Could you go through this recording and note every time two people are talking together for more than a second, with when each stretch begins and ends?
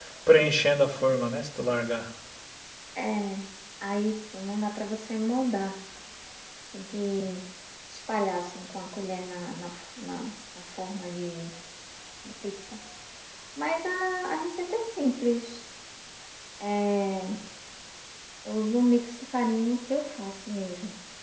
none

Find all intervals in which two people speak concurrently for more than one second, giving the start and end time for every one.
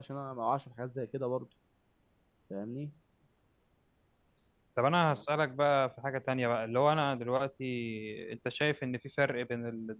none

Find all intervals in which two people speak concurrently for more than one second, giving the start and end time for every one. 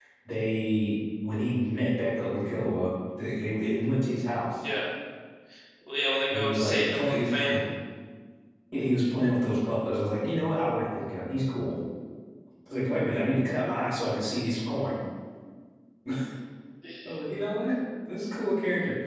6.3-7.6

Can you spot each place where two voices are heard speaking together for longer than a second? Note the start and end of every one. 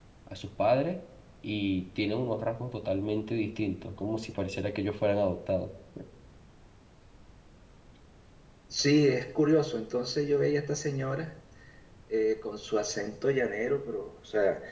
none

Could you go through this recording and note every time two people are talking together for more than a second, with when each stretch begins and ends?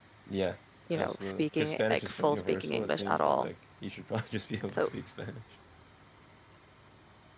0.9-3.5

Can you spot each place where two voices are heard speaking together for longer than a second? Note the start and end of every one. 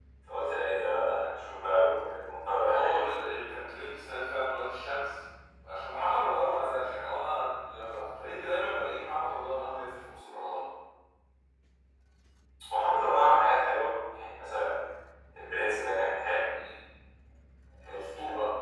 none

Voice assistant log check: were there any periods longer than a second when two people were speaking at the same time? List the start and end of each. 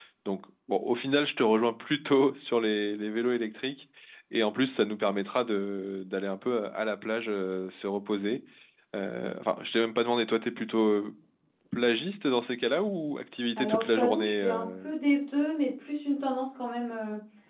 13.6-14.9

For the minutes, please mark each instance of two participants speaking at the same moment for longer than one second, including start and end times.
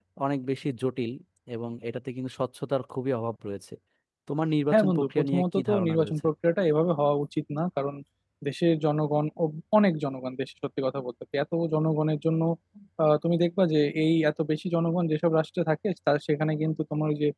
4.7-6.2

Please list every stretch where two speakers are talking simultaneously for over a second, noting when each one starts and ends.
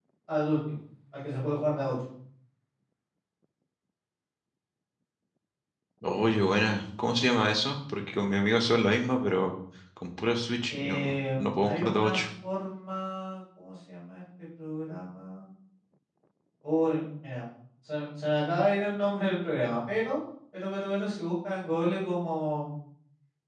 10.7-12.2

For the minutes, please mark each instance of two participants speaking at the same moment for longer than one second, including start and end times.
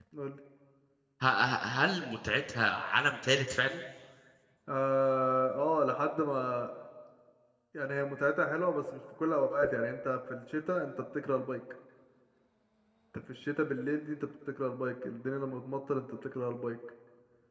none

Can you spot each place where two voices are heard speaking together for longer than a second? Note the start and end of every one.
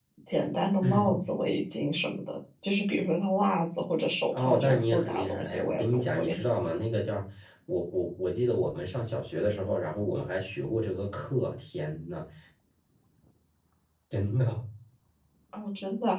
4.3-6.3

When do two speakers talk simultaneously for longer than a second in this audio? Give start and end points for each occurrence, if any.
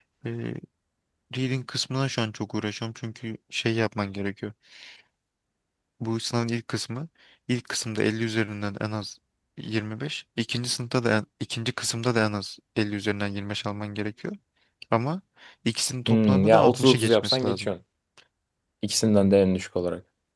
16.1-17.7

